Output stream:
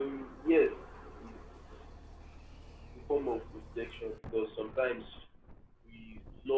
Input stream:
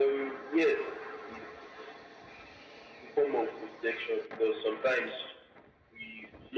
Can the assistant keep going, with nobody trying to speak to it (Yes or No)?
Yes